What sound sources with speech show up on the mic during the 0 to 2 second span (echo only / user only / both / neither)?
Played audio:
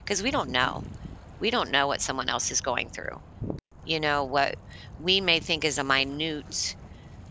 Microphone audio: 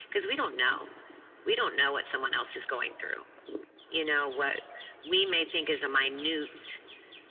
echo only